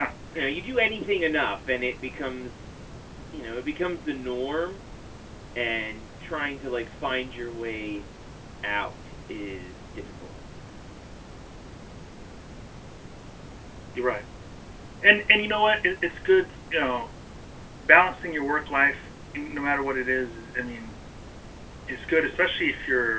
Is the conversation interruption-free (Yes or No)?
Yes